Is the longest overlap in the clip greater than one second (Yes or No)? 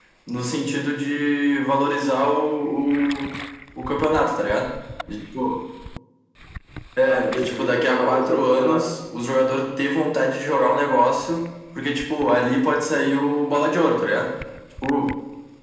Yes